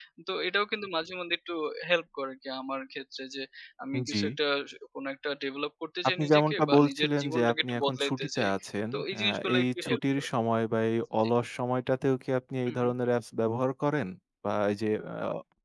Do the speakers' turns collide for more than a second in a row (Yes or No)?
Yes